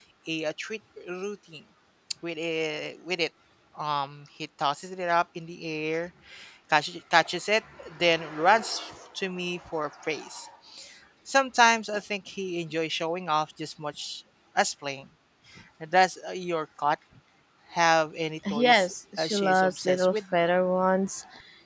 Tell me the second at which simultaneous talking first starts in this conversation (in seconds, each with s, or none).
18.5 s